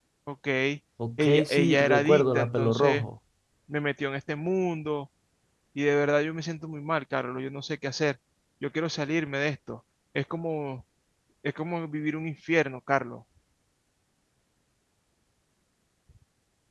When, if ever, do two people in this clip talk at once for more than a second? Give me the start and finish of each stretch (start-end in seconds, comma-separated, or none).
1.2-3.0